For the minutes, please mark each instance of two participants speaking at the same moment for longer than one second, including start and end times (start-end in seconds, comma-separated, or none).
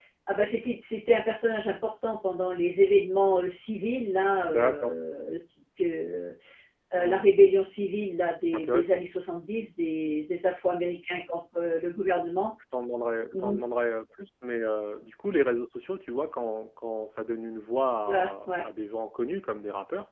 none